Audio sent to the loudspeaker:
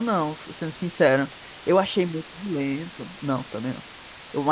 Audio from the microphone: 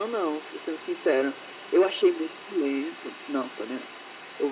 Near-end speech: none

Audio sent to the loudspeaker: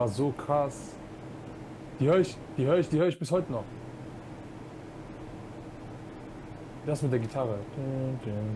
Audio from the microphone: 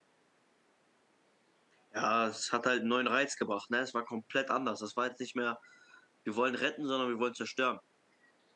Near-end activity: present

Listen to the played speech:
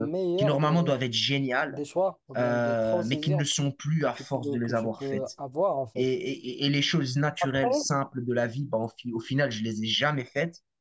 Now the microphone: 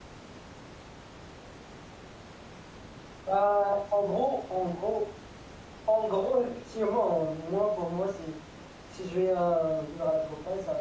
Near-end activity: present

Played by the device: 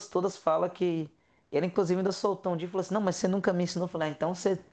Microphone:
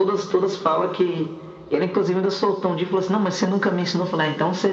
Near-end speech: none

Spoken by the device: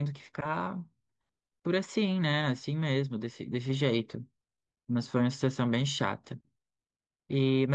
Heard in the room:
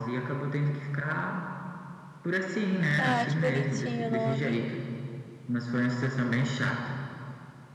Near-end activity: present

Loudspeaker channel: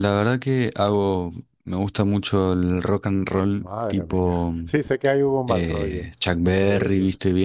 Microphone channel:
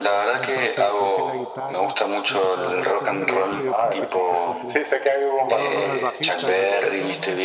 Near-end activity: present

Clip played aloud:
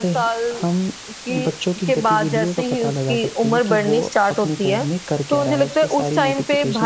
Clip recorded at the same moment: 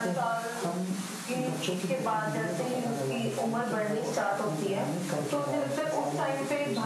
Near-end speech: none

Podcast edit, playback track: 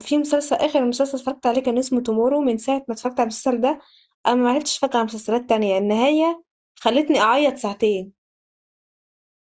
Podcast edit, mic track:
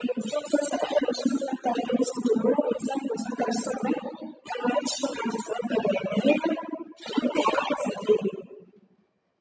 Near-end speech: none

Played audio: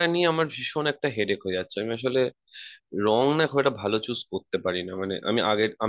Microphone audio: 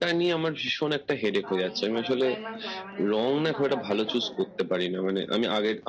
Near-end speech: present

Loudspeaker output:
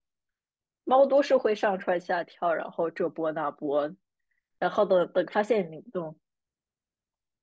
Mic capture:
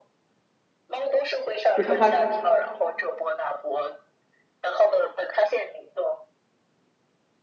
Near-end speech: present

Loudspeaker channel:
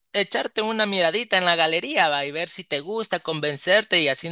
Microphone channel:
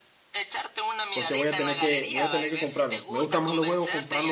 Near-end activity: present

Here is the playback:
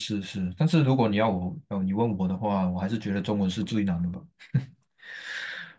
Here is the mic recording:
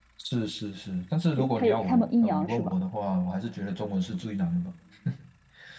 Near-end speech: present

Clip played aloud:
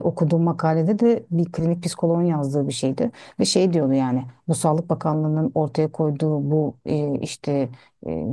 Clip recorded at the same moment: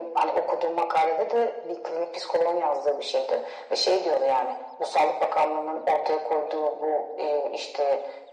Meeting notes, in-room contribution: none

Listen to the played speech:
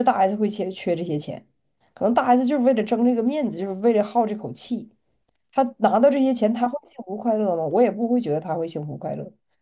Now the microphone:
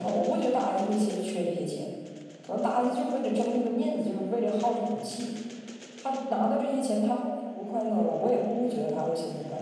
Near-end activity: none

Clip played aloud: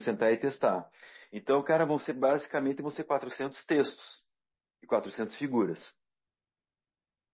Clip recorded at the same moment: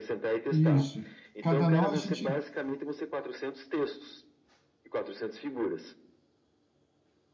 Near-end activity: present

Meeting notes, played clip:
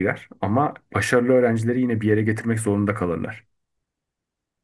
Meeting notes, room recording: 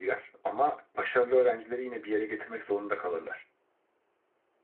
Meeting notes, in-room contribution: none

